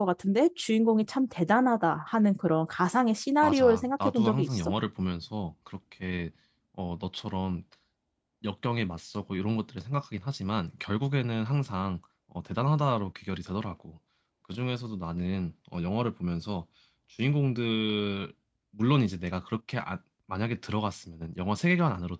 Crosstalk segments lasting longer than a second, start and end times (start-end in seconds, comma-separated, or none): 3.4-4.7